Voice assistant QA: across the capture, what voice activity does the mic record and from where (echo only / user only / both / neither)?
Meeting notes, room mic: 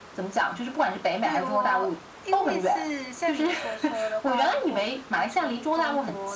both